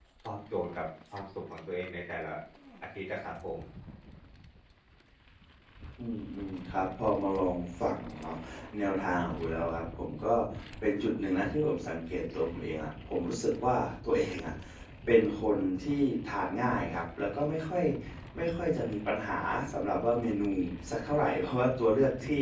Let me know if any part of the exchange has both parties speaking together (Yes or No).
No